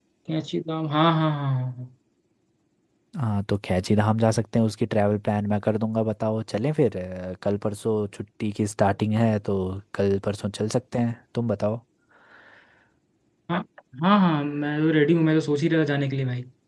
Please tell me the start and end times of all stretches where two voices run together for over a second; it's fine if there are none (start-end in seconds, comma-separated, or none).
none